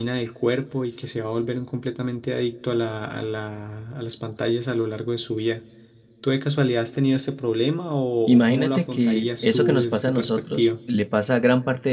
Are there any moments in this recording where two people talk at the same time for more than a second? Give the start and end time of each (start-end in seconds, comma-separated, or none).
8.3-10.7